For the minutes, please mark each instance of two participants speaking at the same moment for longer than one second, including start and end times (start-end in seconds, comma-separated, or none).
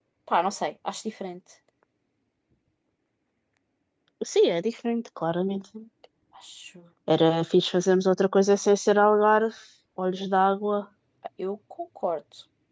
none